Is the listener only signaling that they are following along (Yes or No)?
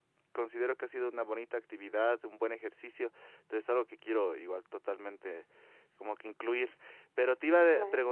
No